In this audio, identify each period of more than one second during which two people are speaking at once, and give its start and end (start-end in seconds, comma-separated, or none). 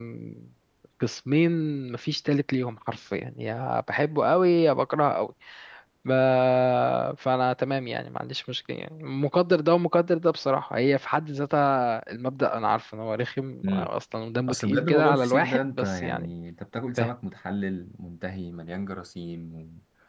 14.5-16.3